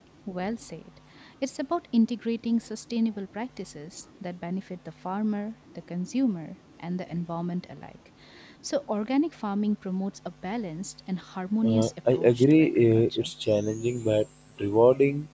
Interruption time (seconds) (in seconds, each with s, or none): 11.6 s